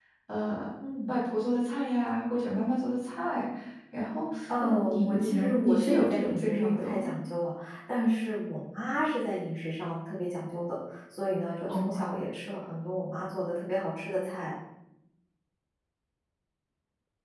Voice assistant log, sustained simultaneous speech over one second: present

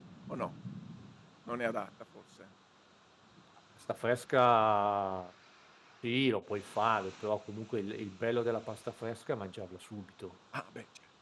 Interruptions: none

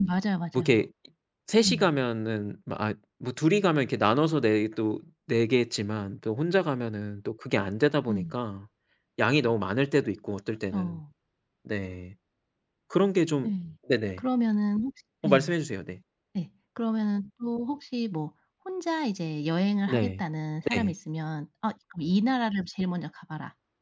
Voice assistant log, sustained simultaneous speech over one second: none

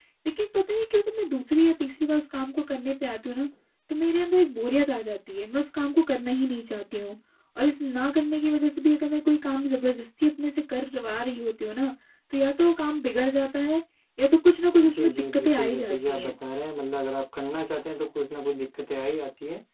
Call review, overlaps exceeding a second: present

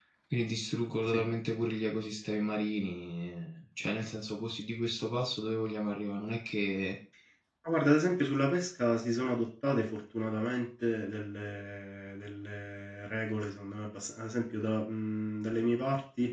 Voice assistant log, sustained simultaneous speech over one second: none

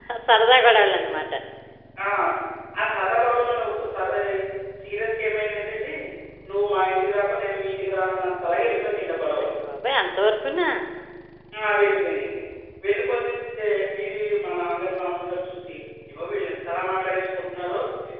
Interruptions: none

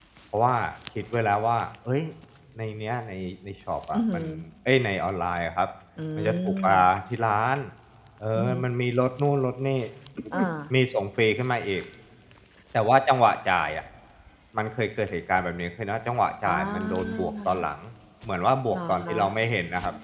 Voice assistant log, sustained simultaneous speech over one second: present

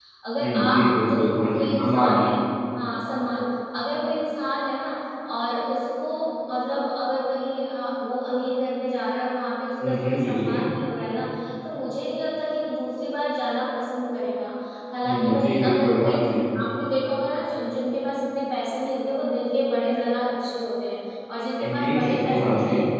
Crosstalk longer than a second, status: present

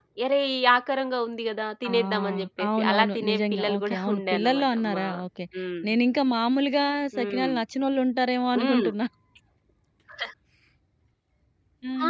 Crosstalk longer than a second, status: present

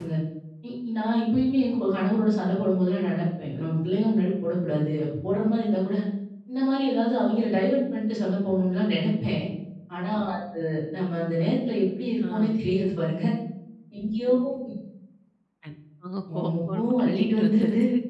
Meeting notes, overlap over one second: present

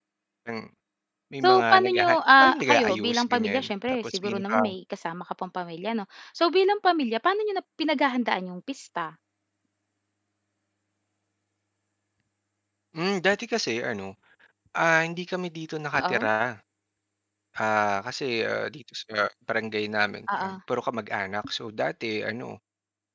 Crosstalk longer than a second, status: present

